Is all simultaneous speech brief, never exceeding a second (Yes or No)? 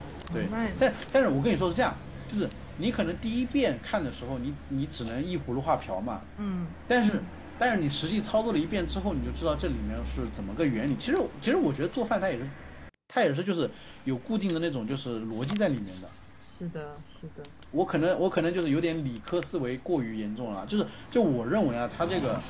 Yes